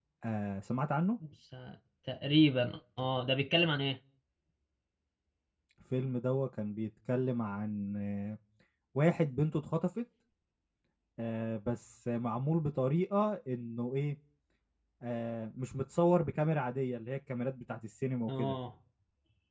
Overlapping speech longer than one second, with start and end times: none

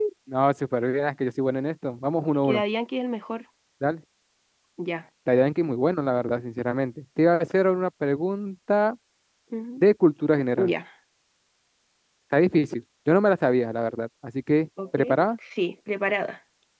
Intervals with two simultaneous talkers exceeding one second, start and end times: none

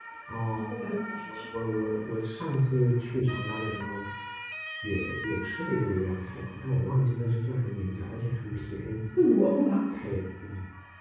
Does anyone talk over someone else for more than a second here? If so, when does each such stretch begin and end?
none

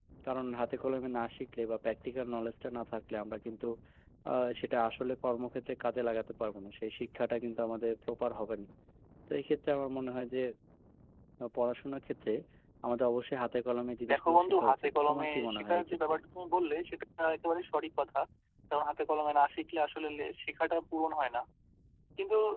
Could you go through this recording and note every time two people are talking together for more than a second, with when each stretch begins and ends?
14.1-16.1

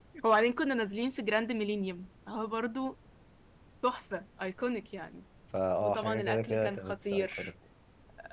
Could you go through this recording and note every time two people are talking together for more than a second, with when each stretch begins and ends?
5.8-7.5

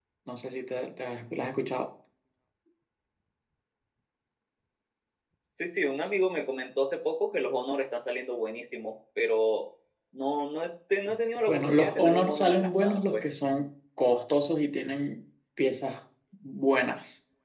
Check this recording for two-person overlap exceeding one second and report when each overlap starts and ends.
11.5-13.3

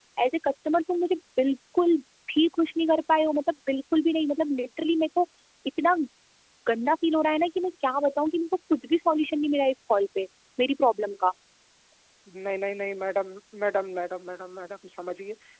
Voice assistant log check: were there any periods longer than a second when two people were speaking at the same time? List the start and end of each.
none

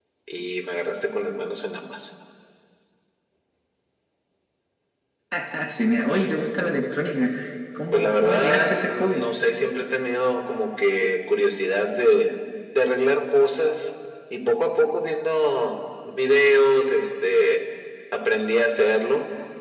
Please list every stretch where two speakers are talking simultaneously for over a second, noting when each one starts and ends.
7.9-9.3

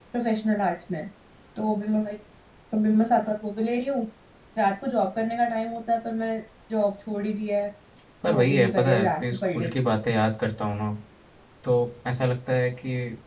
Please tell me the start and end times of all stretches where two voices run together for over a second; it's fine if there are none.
8.3-9.9

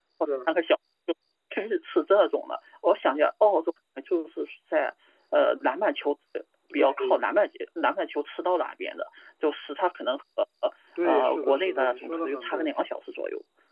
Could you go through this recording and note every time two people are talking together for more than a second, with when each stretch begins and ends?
11.0-12.7

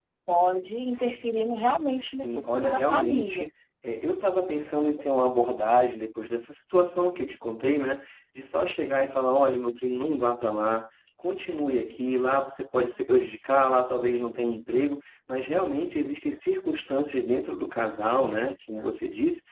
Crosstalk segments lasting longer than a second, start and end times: 2.1-3.5

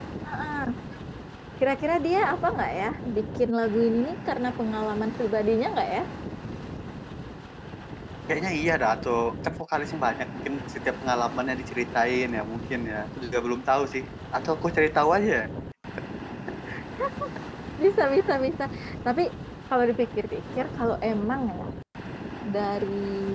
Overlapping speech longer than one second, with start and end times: none

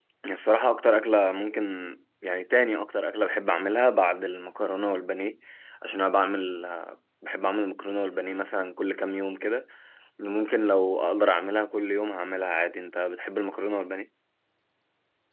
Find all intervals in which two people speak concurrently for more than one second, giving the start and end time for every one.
none

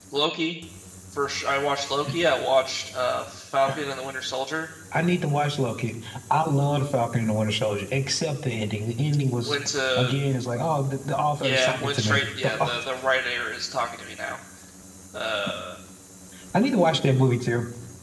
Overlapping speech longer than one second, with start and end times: 11.4-12.7

